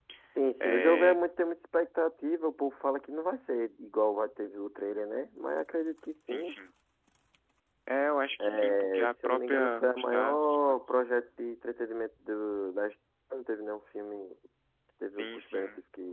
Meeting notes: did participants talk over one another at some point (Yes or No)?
Yes